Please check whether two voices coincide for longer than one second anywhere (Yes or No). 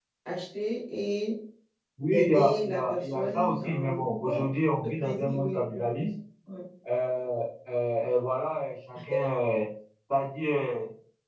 Yes